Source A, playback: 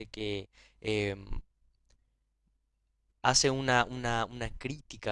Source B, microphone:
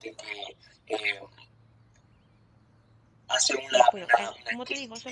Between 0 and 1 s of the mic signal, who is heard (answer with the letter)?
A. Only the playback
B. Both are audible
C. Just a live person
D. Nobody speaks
A